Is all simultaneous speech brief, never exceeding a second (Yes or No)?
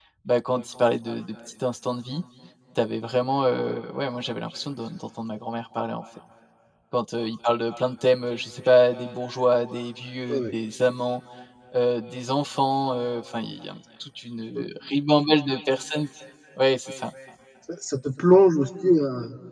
Yes